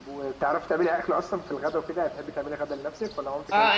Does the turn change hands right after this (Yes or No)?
Yes